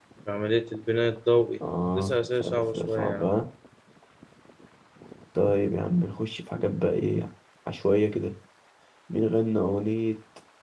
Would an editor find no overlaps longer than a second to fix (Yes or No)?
No